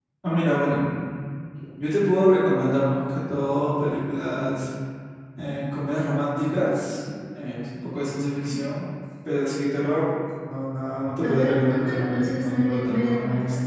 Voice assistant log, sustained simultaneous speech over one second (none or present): present